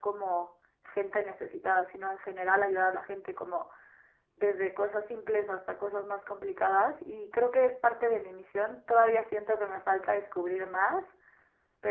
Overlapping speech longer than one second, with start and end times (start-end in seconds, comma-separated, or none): none